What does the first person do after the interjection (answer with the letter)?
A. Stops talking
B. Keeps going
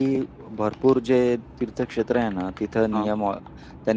B